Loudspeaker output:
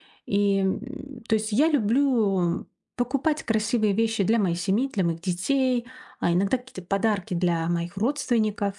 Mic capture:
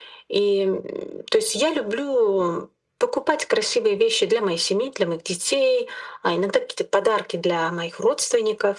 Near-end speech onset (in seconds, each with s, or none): none